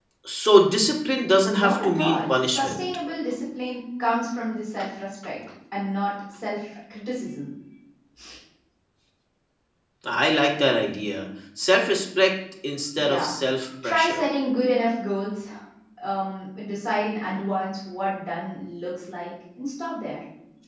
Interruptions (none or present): present